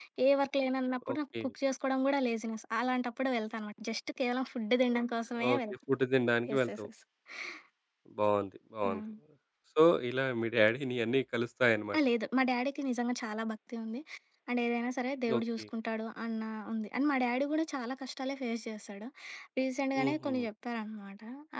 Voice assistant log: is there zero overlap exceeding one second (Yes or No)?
Yes